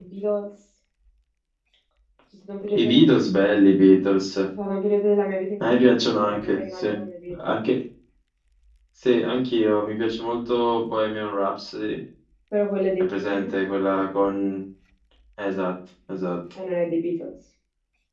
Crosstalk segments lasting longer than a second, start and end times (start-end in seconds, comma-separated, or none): 5.6-6.9